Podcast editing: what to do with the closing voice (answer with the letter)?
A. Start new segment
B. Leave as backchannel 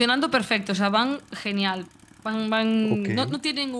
B